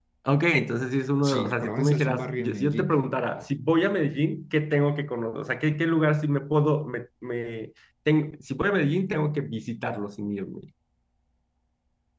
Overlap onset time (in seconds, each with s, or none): 1.2 s